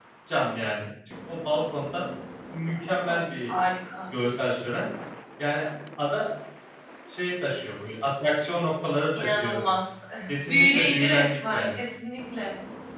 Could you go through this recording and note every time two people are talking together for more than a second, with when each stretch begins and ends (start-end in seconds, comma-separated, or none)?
10.4-11.8